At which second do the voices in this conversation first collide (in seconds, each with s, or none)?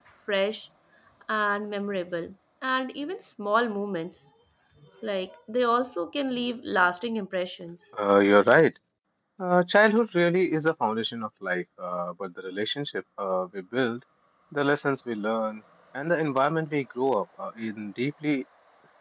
none